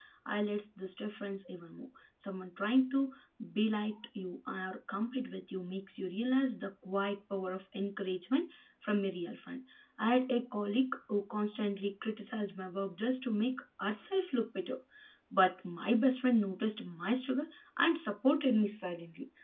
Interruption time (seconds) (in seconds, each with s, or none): none